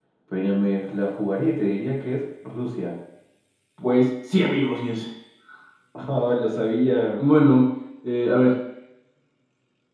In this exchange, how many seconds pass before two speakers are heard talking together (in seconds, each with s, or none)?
none